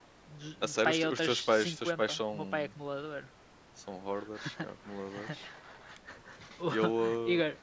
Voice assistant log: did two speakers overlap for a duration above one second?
Yes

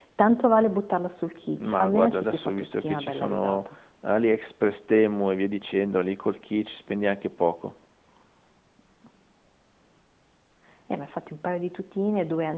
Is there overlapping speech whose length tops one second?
Yes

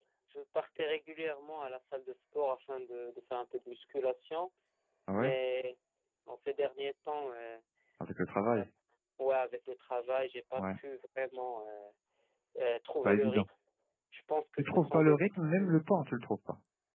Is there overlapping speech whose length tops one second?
Yes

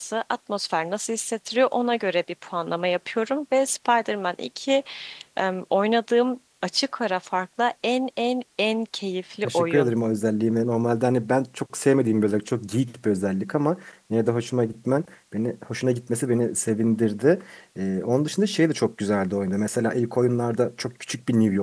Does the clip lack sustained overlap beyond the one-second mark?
Yes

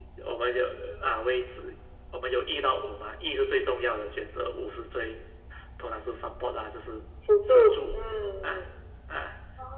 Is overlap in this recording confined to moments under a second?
Yes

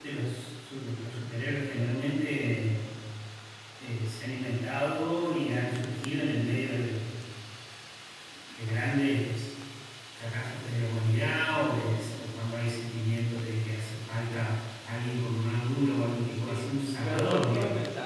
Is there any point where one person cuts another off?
Yes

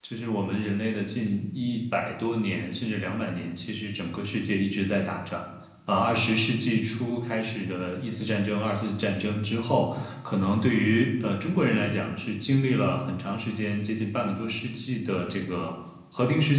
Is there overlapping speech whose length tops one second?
No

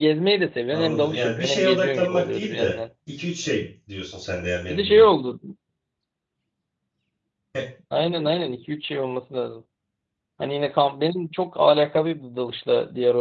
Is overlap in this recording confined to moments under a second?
No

